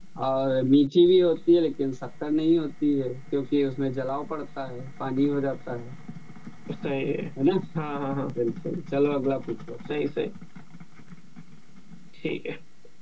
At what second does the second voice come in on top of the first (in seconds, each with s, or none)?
none